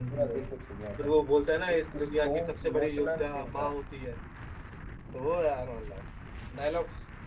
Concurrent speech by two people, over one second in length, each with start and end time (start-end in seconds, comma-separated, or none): 1.8-3.7